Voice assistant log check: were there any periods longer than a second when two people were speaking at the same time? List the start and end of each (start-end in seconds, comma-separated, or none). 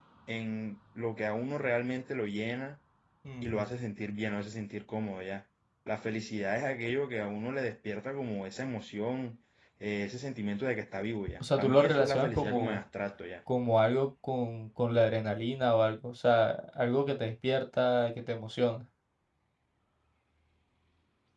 11.4-12.8